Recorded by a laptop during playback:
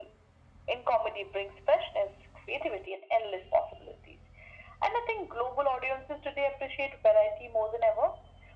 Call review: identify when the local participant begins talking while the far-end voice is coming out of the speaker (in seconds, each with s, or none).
none